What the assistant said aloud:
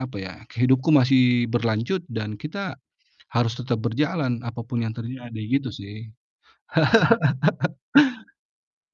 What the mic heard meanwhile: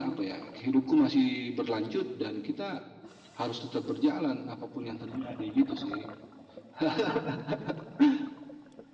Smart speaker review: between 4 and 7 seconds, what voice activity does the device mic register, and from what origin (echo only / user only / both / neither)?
echo only